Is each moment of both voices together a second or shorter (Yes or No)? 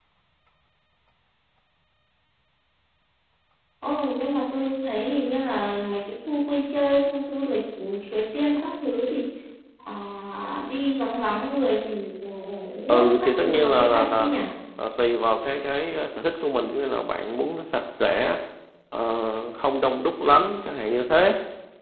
No